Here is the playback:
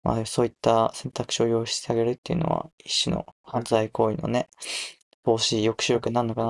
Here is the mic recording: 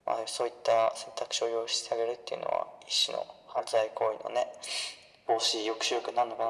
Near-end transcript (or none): none